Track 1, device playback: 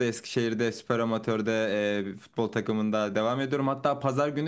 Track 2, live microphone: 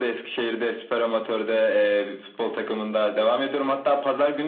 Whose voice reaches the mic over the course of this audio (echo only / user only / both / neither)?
echo only